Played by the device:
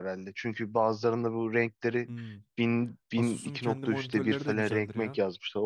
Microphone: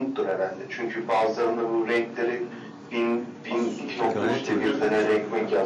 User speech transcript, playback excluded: Gayet iyi.

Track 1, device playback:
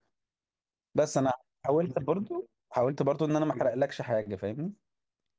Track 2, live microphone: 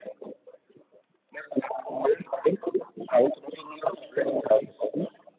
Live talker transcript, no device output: none

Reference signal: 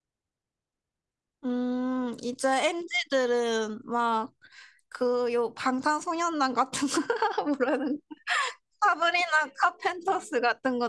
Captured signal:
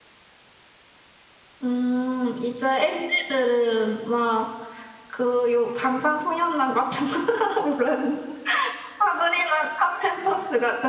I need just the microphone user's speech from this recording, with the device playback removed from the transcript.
none

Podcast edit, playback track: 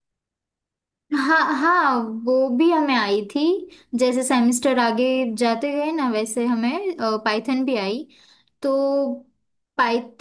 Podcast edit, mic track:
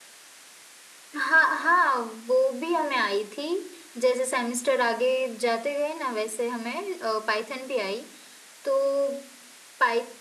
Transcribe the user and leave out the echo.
none

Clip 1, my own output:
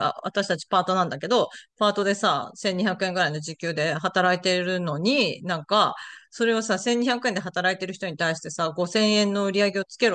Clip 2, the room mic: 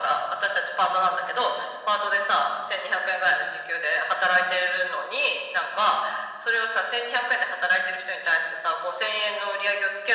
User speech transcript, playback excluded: none

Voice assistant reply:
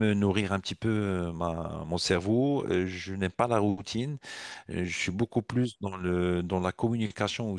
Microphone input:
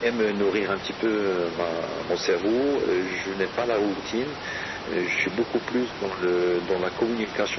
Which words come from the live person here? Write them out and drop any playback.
none

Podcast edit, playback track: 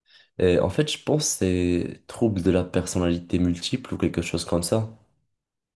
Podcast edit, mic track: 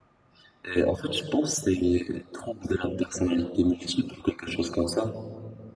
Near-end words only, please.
none

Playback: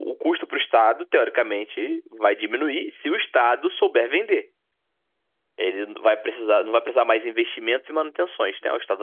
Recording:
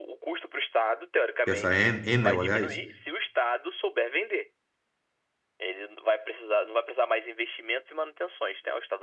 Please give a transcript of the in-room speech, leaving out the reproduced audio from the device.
que é essa En- Enel, aliás,

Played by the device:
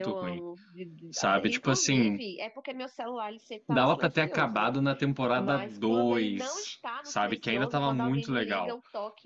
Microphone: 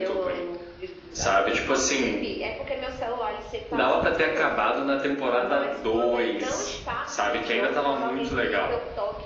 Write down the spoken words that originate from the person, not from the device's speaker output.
none

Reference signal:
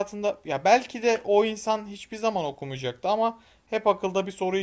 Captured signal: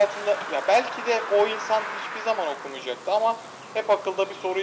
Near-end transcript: none

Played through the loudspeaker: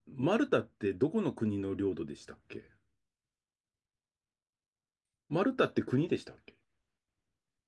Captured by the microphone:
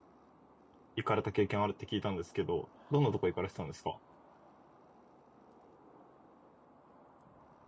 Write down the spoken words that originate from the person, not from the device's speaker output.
行かれた経験あるって聞いたんですけど、どんなとこ行かれてたんですか

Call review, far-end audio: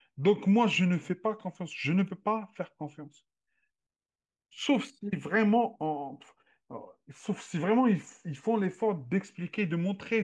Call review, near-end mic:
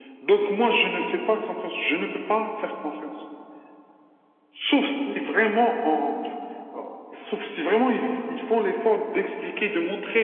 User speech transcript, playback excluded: none

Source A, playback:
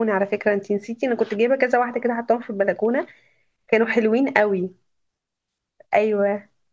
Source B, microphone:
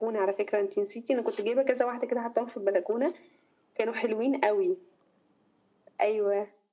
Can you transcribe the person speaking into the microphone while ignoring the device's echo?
none

